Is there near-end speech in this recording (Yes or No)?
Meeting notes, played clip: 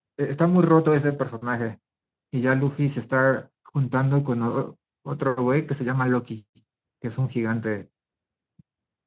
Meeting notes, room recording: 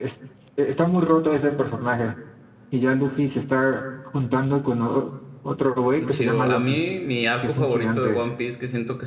Yes